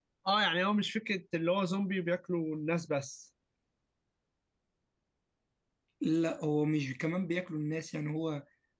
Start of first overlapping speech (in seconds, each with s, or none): none